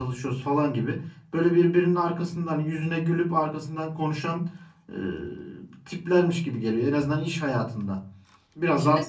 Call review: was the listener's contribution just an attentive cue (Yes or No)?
Yes